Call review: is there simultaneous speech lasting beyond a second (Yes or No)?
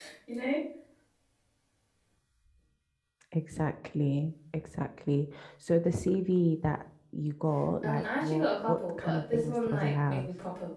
Yes